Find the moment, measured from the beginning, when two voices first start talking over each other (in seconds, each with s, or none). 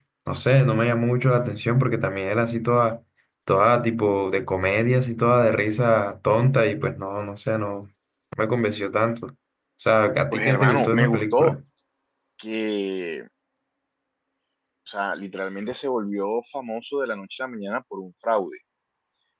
10.3 s